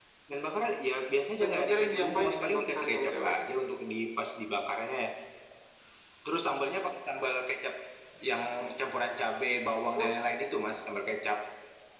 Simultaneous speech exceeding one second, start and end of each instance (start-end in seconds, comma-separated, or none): 1.3-3.3